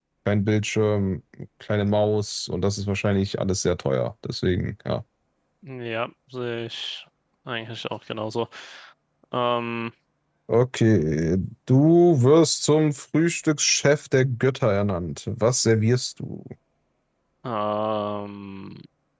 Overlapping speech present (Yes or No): No